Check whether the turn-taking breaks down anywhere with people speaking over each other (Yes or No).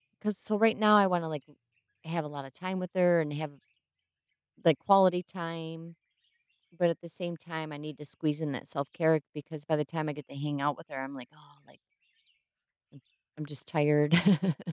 No